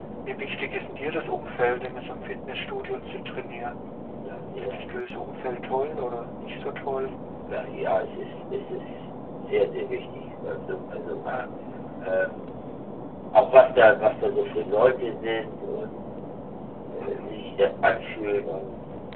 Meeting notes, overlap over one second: none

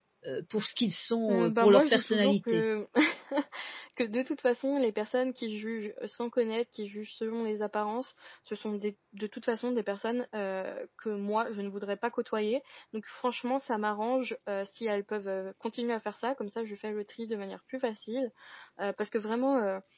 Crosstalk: present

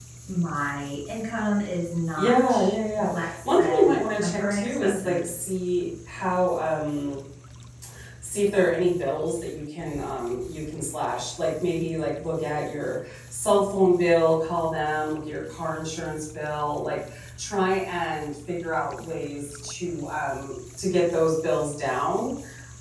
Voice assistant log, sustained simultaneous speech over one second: present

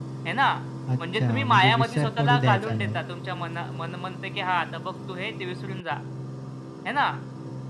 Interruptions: present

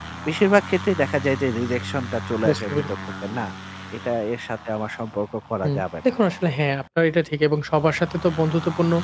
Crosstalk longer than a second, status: none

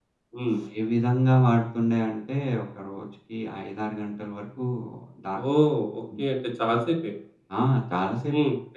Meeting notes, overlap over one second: none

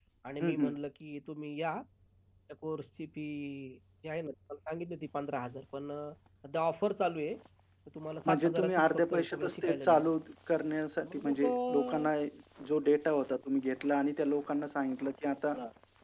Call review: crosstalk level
present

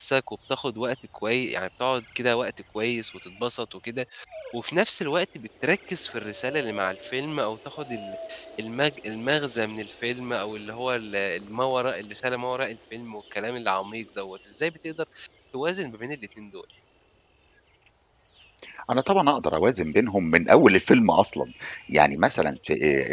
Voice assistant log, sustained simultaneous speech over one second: none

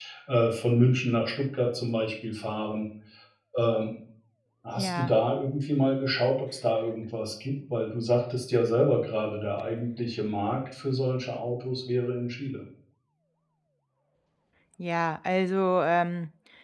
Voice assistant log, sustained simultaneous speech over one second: none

